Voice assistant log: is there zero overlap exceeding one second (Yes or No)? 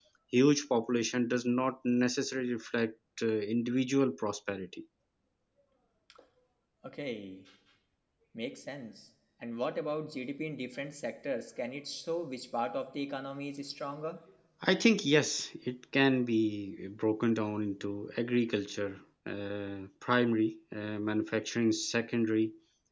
Yes